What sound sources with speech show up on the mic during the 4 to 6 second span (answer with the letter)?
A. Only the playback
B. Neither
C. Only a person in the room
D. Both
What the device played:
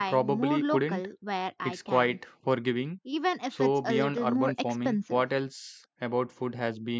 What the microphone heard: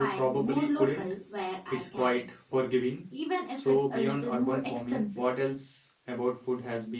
A